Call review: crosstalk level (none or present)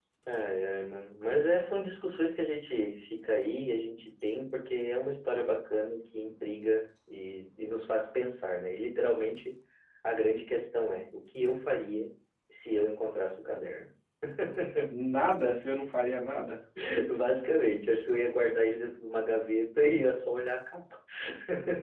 none